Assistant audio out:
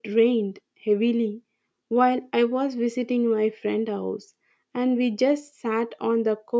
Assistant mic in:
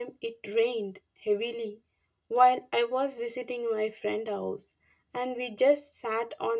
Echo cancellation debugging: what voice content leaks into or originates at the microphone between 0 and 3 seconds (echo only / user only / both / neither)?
echo only